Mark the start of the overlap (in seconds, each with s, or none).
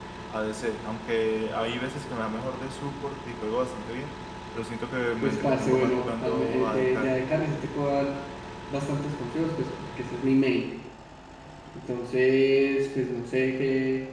5.2 s